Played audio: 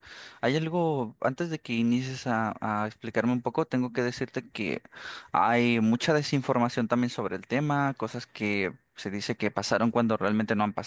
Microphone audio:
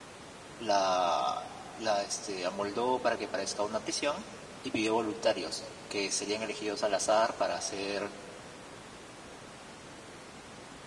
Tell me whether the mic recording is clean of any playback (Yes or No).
Yes